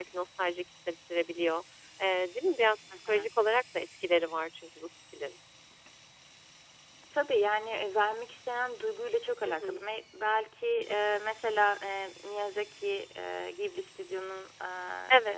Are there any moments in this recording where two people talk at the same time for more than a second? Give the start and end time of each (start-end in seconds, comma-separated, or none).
none